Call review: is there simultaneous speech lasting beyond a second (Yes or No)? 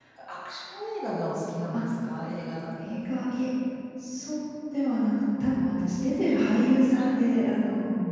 No